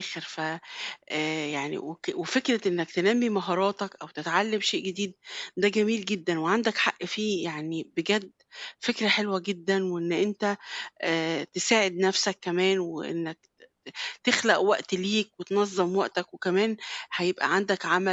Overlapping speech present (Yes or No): No